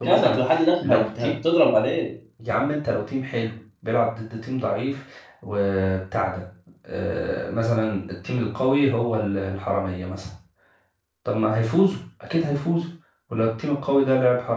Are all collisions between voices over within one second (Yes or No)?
Yes